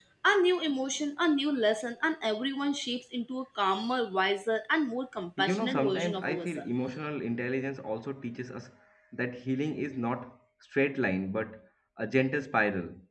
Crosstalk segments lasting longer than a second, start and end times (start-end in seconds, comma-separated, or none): 5.4-6.7